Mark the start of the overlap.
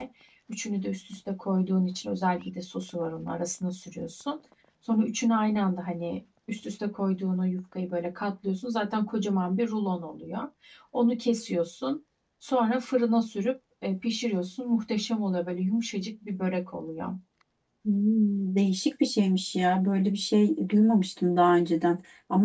none

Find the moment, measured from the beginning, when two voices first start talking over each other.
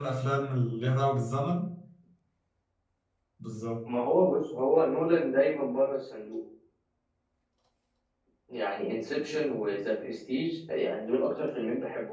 none

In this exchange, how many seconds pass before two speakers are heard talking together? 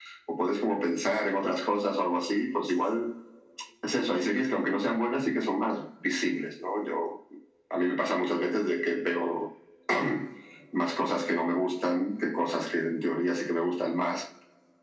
none

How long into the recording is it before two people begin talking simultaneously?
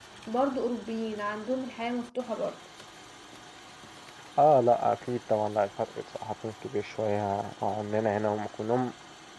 none

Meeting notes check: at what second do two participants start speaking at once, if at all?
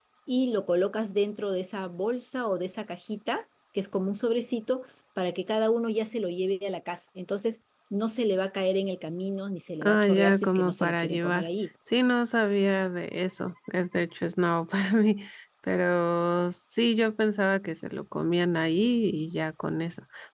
9.8 s

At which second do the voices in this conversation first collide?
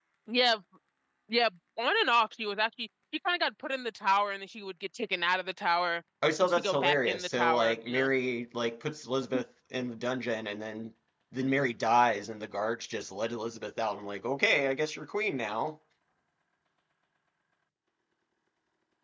6.4 s

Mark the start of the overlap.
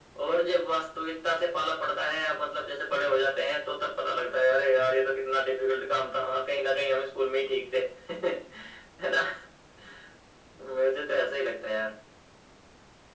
none

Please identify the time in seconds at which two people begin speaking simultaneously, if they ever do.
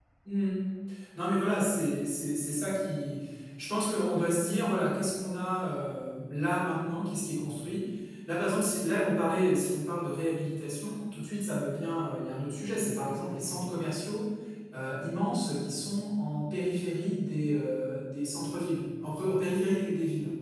none

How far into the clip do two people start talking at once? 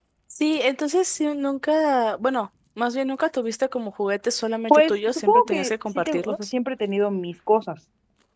4.7 s

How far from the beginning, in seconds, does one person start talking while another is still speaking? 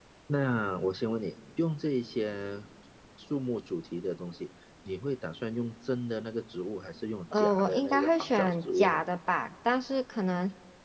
7.3 s

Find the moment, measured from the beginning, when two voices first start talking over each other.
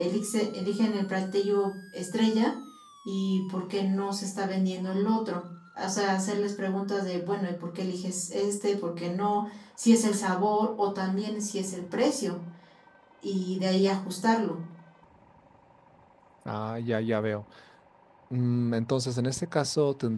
none

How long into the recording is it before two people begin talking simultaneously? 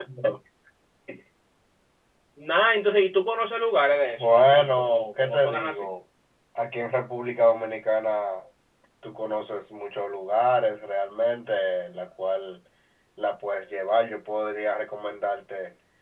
4.2 s

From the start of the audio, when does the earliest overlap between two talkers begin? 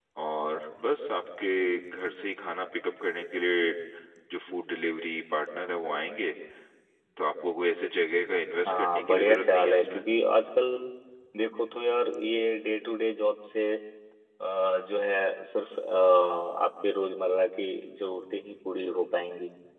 8.7 s

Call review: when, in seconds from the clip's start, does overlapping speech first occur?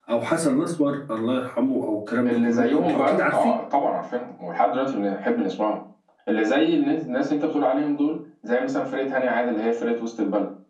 2.2 s

